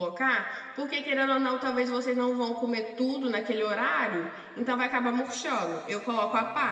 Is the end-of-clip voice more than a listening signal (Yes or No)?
Yes